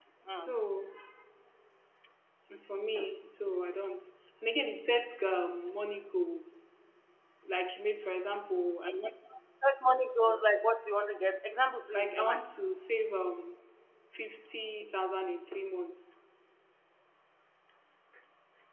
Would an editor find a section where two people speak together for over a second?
No

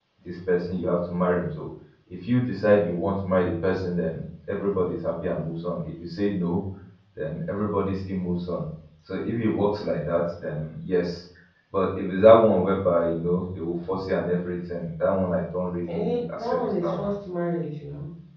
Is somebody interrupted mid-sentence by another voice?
Yes, from 15.9 s

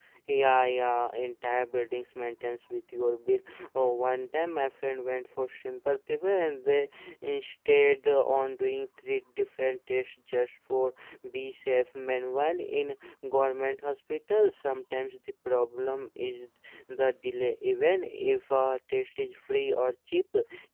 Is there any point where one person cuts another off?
No

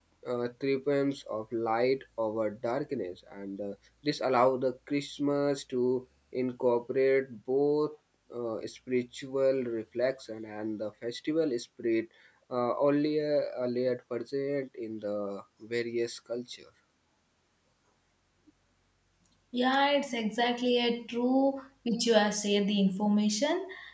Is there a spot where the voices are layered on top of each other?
No

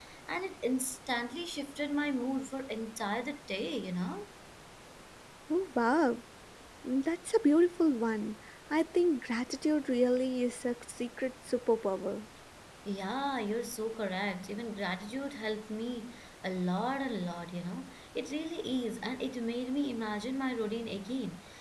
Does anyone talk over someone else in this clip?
No

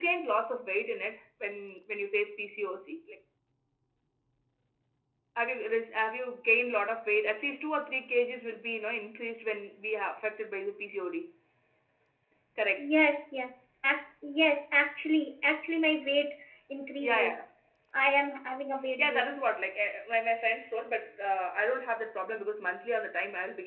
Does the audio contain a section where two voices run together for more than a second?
No

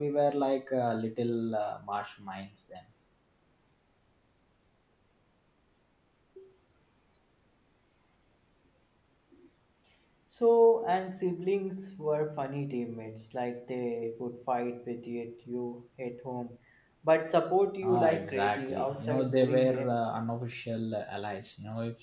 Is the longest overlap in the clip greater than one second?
Yes, from 17.8 s

